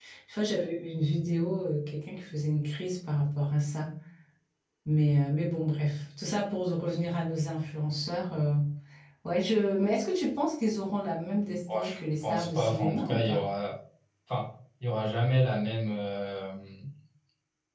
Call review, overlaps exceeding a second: present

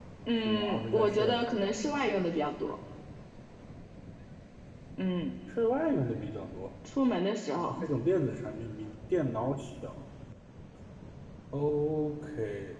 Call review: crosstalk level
present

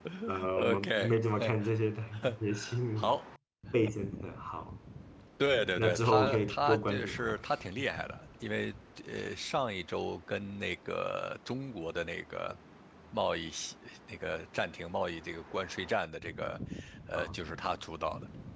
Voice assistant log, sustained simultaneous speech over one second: present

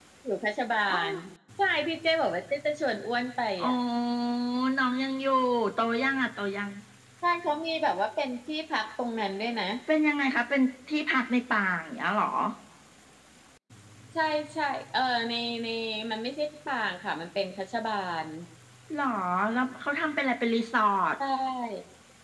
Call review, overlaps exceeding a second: none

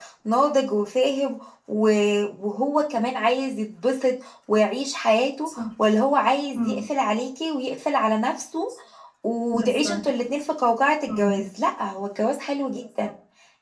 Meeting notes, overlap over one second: none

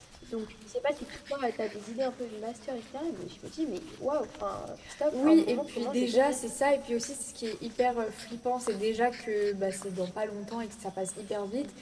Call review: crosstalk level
present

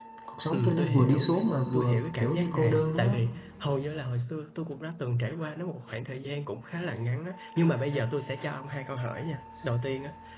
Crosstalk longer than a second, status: present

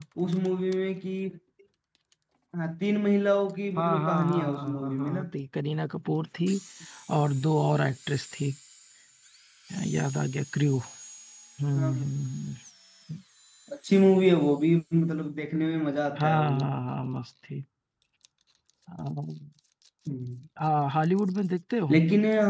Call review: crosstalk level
present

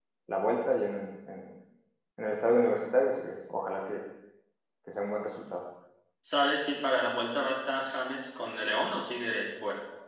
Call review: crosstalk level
none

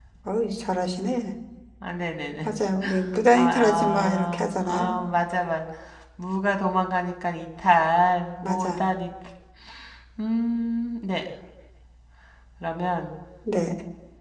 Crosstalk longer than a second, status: present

